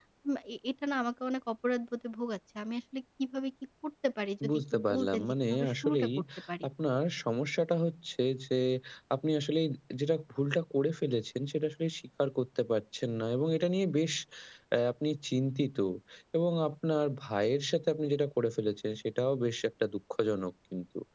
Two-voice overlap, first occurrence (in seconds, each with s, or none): 4.4 s